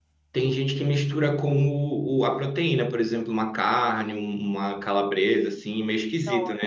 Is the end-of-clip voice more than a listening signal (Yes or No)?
Yes